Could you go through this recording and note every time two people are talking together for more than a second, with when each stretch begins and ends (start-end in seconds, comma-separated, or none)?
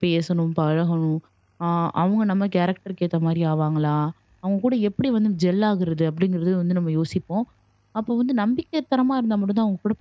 none